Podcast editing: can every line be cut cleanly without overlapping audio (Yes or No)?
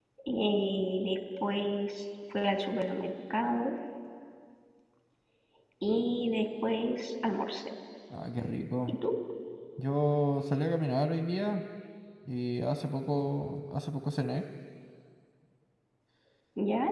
Yes